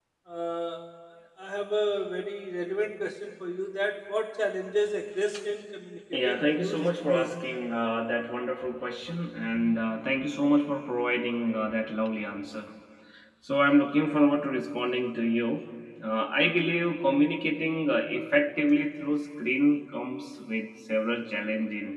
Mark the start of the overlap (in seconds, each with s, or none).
6.1 s